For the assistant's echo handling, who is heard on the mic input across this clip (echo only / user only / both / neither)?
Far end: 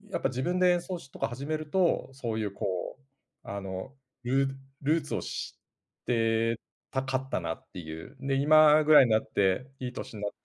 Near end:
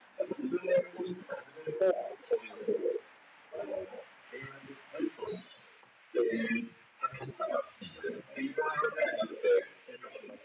echo only